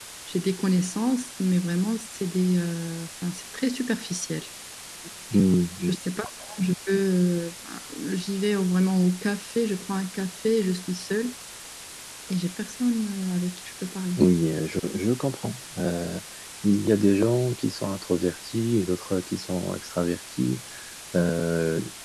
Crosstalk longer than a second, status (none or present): none